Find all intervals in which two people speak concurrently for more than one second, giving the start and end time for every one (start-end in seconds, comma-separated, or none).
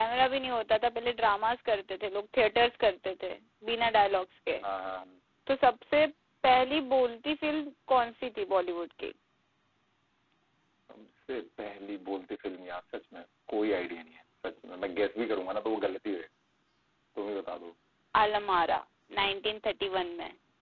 none